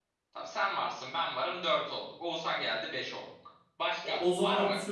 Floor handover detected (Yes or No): Yes